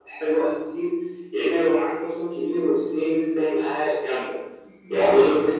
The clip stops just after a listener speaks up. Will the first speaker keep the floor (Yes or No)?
Yes